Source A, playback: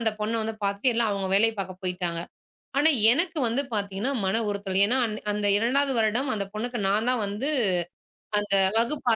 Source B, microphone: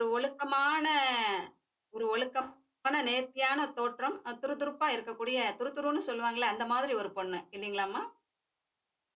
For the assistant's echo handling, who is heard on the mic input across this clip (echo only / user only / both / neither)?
user only